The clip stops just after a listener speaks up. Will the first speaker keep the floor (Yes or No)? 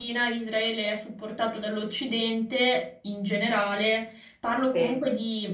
Yes